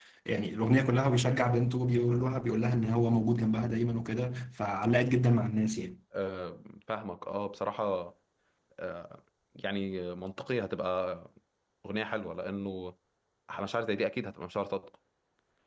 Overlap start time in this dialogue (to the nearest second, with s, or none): none